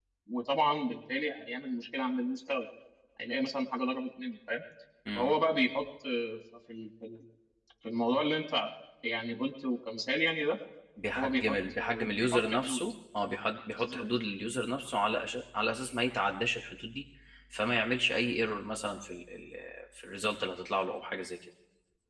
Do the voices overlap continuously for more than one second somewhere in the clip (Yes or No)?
Yes